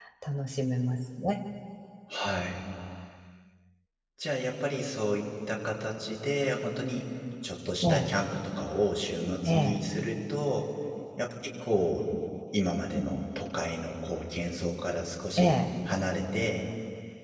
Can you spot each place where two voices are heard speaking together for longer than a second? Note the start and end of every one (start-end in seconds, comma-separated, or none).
none